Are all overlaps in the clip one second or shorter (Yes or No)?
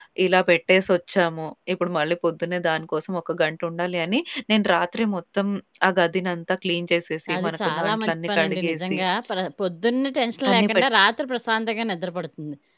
No